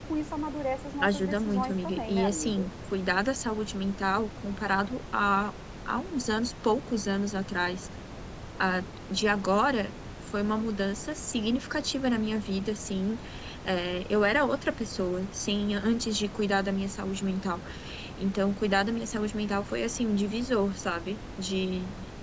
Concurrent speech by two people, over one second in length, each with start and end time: 1.0-2.7

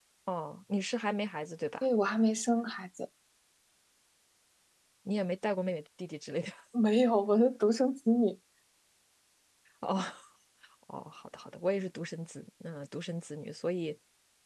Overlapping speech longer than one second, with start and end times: none

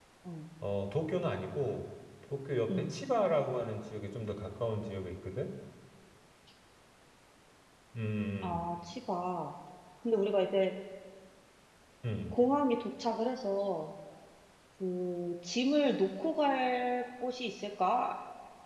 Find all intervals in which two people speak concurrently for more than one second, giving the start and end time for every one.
none

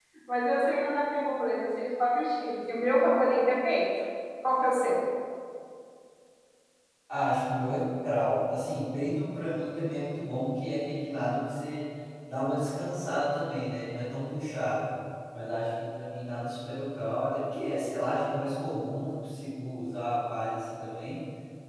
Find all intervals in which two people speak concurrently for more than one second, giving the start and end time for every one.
none

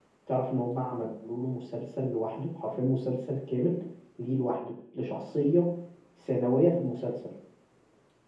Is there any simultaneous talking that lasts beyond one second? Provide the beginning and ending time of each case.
none

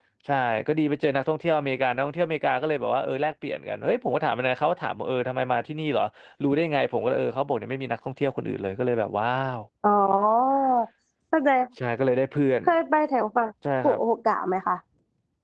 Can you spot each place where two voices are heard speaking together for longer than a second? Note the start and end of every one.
none

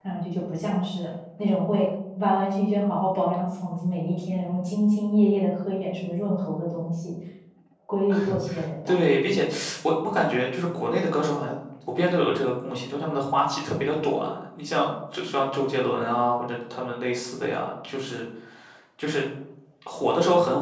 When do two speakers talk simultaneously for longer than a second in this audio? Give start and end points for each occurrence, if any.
none

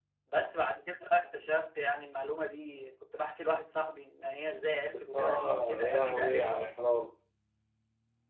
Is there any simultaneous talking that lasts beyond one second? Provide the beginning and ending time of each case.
5.1-6.8

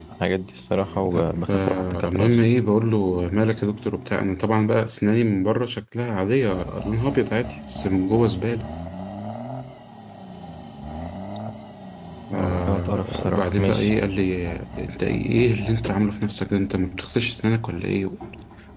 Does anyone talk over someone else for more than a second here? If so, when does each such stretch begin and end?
1.0-2.4, 12.3-13.9

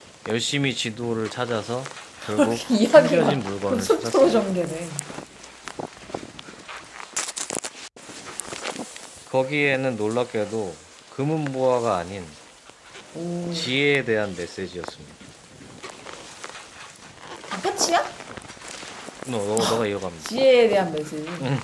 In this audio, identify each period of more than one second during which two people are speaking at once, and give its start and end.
2.4-4.4

